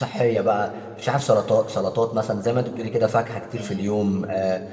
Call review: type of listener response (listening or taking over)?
listening